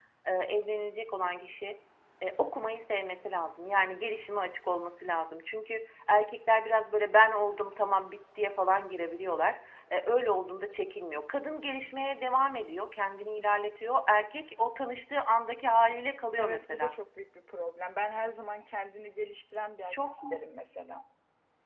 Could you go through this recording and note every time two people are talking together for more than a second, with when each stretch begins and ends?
none

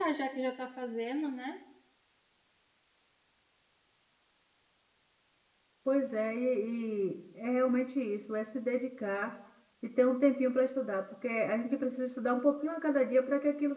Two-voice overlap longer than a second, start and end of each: none

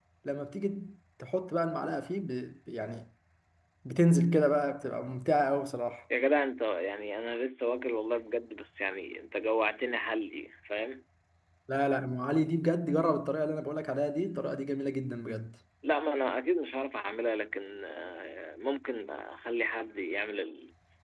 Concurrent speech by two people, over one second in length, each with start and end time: none

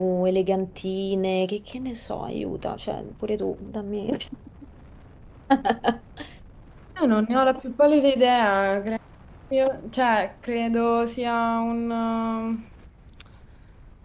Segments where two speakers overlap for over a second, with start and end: none

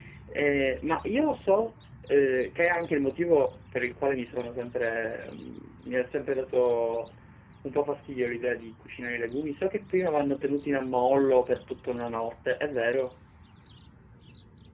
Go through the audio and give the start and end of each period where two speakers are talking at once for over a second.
none

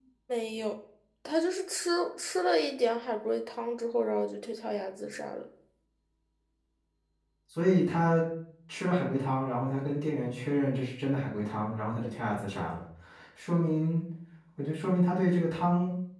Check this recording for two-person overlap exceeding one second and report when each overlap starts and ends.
none

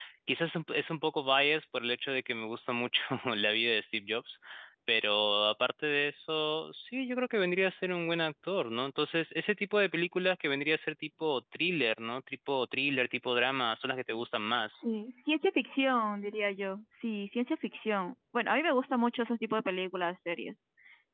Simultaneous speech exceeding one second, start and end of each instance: none

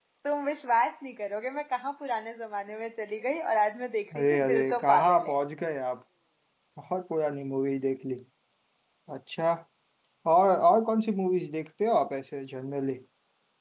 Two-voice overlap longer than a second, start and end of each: 4.2-5.4

